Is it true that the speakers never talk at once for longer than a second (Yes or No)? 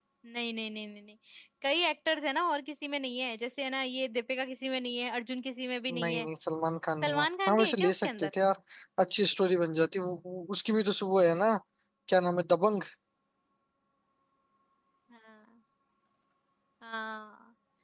No